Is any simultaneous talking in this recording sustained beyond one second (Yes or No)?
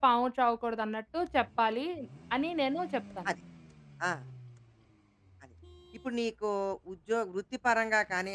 No